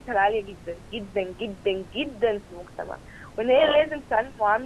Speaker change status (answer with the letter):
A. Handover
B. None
B